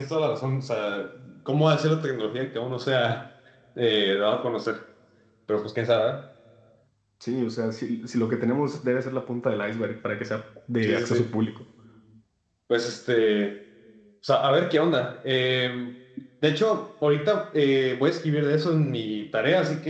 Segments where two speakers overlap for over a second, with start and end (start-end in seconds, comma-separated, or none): none